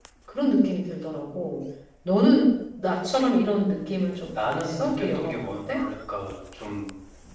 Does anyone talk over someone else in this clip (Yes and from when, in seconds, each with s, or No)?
Yes, from 4.3 s